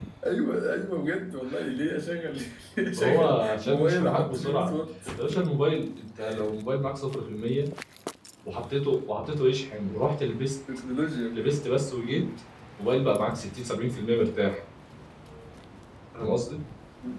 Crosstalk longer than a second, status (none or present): present